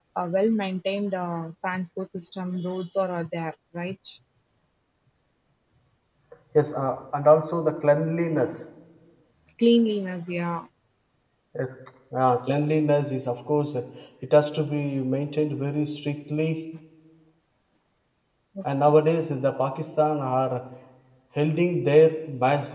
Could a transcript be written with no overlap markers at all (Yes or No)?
Yes